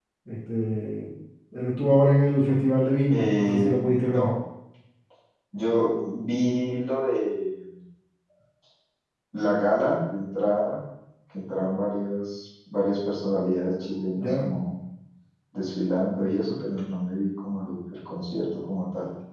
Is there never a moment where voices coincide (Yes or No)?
No